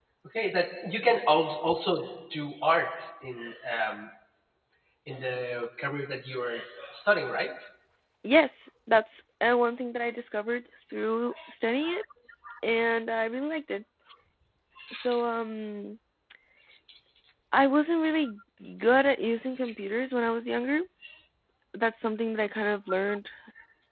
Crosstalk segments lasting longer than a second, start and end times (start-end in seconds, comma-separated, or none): none